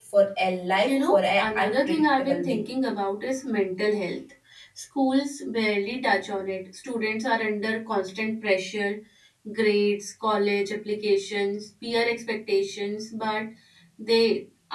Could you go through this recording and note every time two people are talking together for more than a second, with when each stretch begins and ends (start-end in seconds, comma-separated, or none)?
0.8-2.6